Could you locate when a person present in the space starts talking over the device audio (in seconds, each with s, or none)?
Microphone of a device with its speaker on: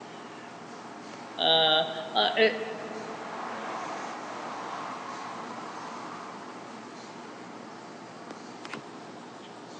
1.4 s